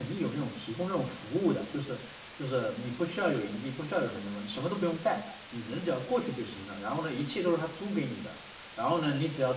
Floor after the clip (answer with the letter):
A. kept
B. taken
A